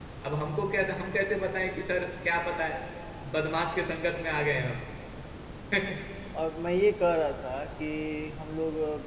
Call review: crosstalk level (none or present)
none